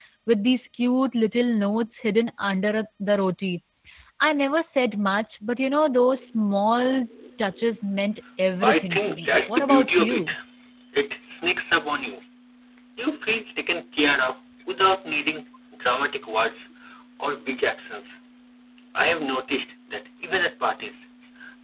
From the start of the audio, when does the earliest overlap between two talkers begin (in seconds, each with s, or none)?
8.6 s